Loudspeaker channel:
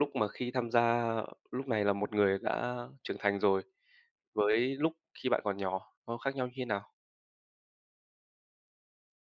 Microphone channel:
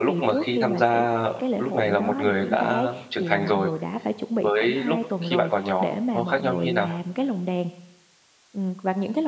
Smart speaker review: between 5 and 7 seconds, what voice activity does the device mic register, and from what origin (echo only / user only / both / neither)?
both